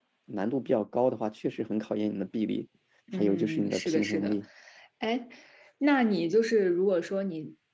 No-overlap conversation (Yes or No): No